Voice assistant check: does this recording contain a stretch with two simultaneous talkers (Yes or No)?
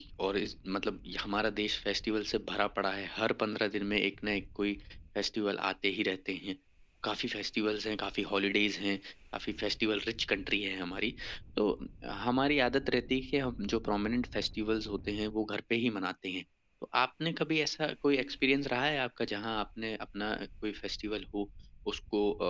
No